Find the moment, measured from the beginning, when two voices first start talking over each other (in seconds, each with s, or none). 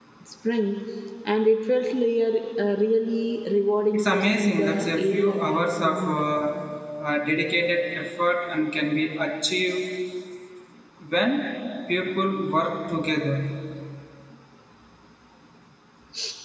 3.9 s